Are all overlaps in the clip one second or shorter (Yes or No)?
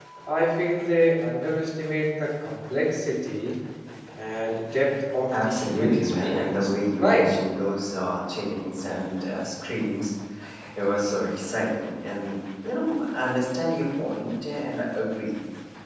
No